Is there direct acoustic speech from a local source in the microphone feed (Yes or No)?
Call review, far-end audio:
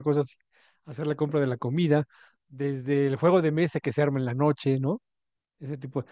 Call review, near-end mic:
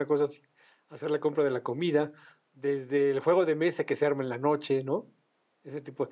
No